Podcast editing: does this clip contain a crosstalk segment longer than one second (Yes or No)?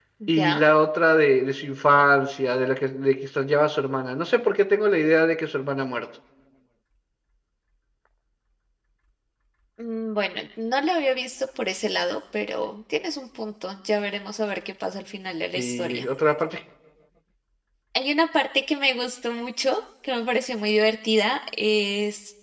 No